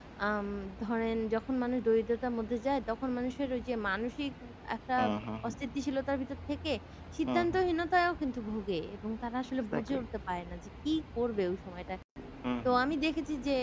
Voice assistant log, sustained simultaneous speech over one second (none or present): none